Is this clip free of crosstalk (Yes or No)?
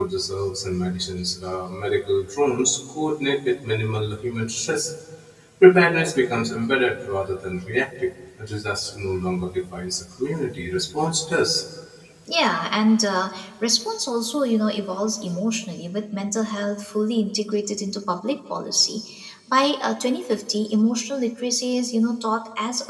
Yes